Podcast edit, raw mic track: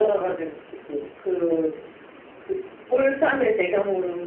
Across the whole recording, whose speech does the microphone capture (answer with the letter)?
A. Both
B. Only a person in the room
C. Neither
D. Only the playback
D